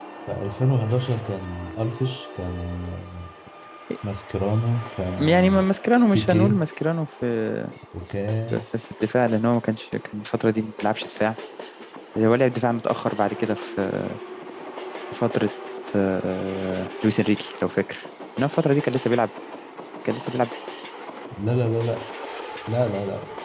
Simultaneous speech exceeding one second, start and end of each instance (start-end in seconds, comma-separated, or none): none